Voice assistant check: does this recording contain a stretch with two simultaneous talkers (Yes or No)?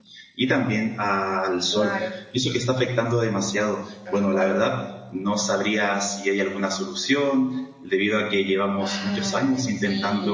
Yes